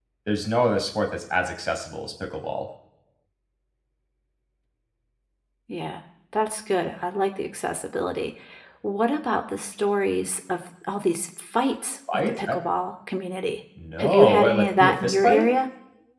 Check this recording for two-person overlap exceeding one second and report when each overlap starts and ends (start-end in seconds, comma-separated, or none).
14.0-15.5